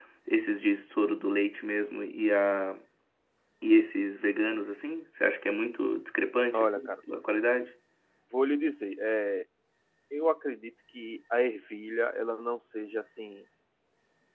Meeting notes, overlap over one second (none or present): none